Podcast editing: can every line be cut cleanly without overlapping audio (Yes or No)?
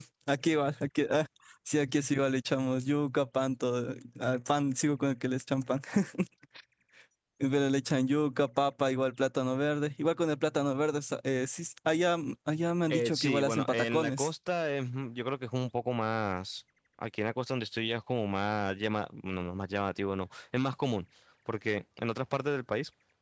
No